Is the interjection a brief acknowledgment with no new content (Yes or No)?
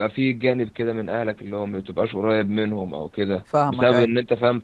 Yes